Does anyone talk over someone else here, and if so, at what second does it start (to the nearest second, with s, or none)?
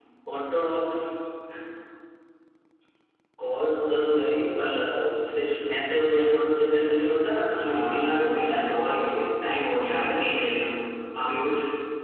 8 s